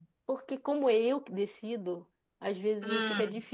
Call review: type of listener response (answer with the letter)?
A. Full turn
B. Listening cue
B